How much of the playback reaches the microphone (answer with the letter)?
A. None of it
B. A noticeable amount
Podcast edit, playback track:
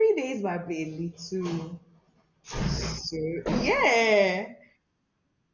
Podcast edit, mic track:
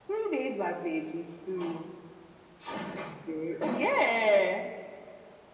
B